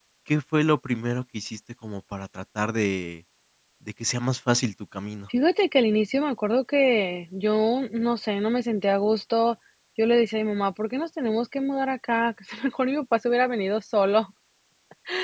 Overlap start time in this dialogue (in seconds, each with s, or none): none